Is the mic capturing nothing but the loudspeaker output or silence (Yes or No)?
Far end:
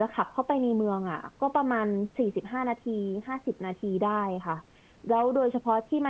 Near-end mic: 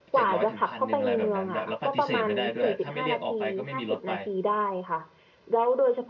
No